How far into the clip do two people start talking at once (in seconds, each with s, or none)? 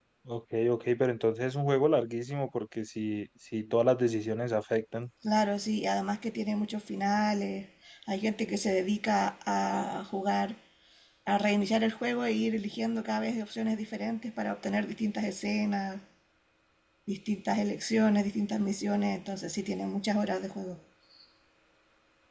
none